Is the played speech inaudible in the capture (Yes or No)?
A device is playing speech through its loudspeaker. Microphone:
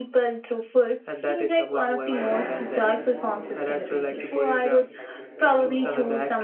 No